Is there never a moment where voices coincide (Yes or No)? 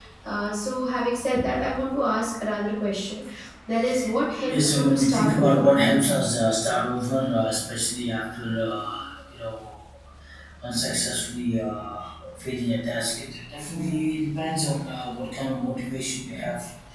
No